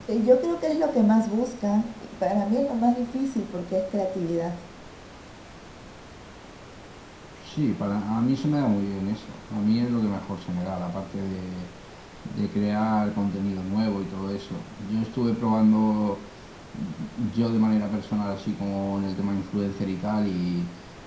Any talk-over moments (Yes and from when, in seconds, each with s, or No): No